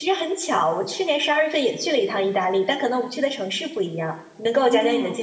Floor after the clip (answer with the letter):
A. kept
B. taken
B